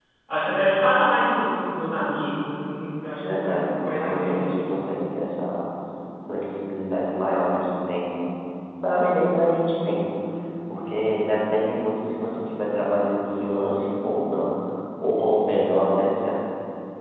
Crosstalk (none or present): present